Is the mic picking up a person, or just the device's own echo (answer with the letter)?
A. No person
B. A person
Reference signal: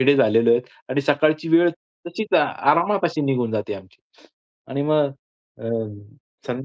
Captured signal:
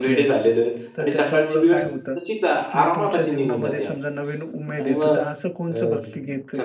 B